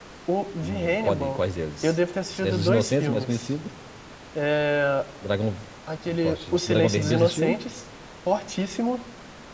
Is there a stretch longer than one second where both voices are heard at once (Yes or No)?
Yes